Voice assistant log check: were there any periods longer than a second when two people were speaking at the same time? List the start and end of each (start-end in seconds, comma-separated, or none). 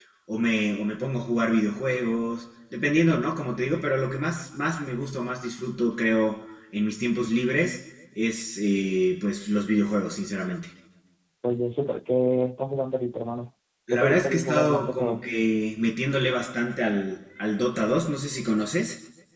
13.9-15.2